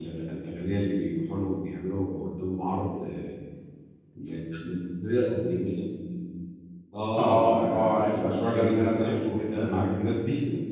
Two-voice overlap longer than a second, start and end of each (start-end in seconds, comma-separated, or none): 7.2-9.9